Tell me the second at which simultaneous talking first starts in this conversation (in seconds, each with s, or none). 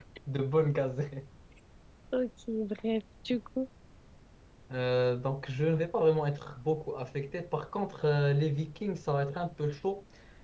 none